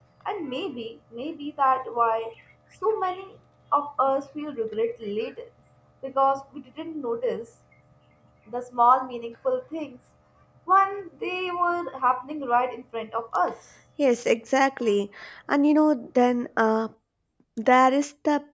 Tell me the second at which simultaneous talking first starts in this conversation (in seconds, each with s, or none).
none